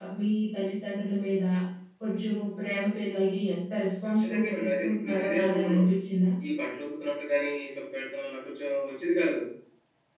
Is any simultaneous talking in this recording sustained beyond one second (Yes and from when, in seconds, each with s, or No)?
Yes, from 4.2 s